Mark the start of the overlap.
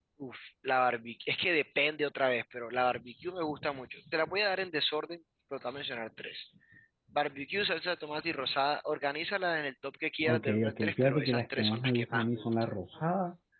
10.2 s

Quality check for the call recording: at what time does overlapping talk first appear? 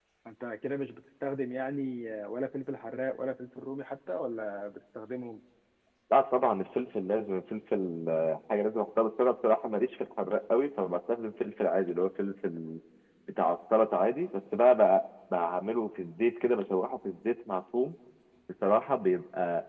none

